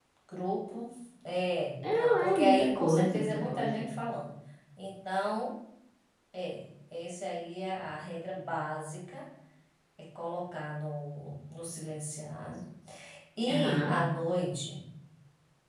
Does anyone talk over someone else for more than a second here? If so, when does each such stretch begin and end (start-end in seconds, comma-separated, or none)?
1.9-3.9